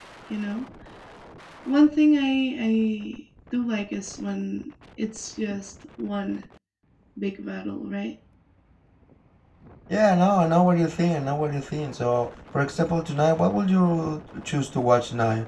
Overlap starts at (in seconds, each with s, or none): none